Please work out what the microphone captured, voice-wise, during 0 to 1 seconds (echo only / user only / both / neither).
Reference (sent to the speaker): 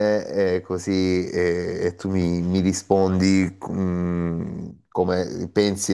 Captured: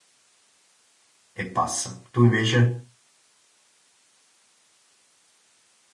neither